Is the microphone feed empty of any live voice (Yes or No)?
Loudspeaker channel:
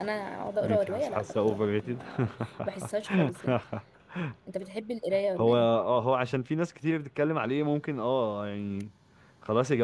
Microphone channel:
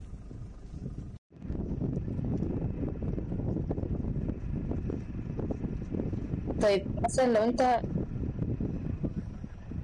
No